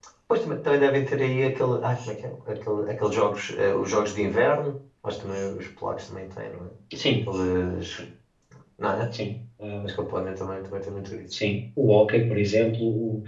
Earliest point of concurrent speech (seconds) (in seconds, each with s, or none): none